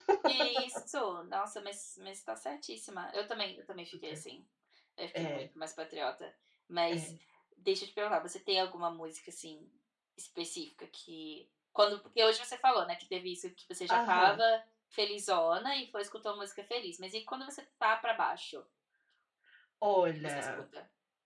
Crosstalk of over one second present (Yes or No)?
No